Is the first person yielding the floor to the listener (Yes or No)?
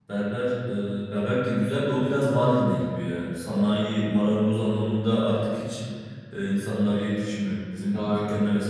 No